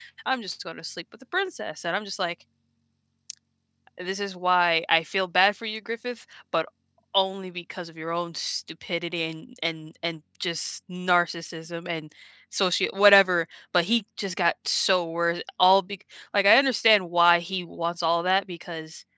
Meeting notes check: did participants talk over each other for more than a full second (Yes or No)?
No